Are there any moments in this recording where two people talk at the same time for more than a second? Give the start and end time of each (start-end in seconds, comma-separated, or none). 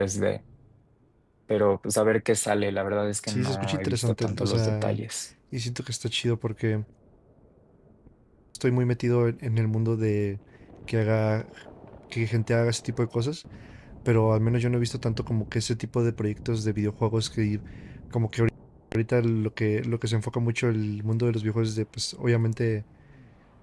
3.3-5.0